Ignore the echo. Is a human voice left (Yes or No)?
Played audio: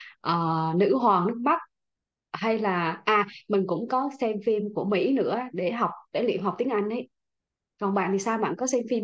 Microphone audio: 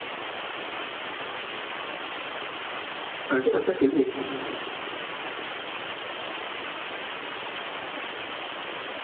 Yes